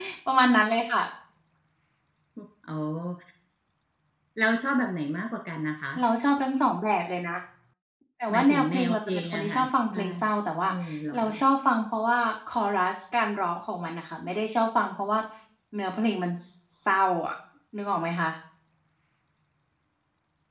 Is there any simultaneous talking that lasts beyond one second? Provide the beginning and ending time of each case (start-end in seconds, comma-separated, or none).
8.3-10.0